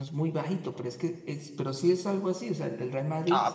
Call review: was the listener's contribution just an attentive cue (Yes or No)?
No